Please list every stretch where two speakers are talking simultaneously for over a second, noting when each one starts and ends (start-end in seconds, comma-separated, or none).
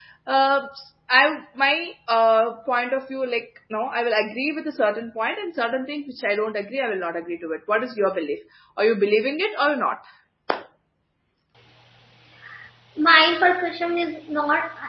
none